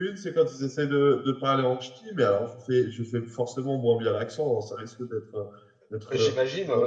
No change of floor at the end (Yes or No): Yes